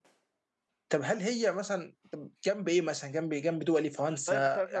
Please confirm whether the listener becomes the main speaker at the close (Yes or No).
Yes